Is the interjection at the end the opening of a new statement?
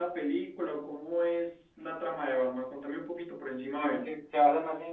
Yes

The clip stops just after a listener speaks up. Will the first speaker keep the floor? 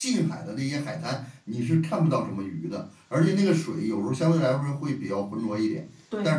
Yes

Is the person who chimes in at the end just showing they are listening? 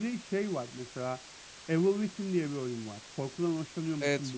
No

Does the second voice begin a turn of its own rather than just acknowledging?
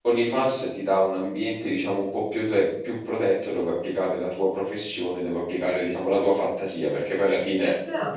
No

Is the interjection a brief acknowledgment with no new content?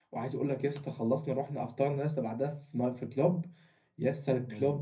Yes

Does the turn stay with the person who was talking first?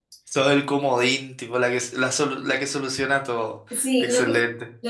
No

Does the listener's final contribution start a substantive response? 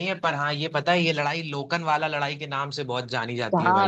Yes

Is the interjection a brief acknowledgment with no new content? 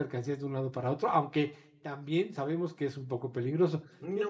Yes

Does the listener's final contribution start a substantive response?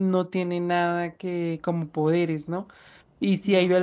No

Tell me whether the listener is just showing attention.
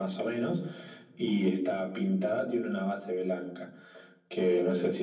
Yes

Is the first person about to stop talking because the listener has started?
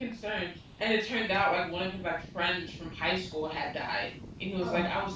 No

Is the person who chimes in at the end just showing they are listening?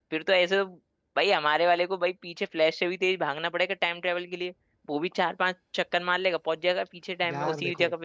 No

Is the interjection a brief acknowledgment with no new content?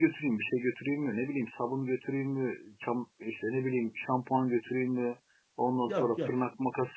Yes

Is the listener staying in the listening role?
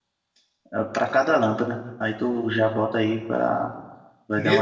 No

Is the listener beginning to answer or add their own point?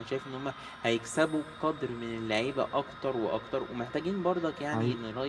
No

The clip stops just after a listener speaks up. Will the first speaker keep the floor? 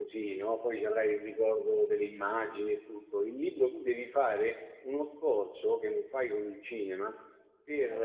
Yes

